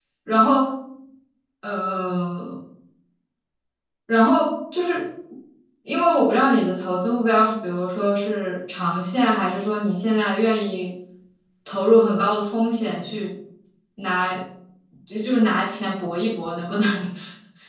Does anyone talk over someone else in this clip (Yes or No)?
No